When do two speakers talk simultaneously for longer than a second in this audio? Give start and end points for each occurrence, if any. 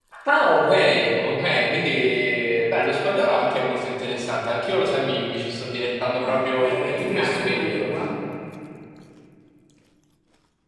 6.2-7.9

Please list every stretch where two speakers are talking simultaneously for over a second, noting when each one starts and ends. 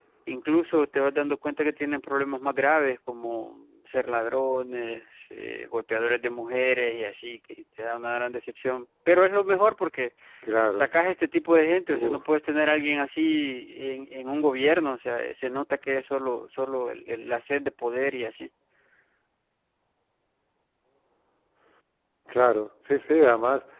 none

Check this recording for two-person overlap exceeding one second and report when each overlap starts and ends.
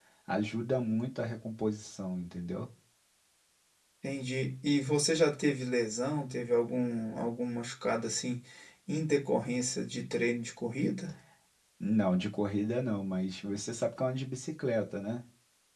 none

